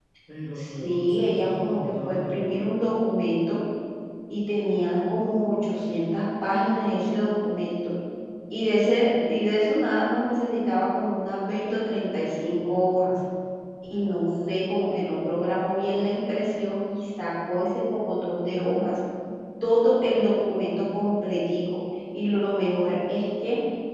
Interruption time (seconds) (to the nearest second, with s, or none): 1 s